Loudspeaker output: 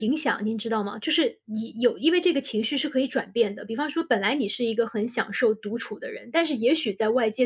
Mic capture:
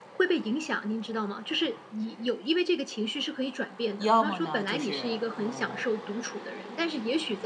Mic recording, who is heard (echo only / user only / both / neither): both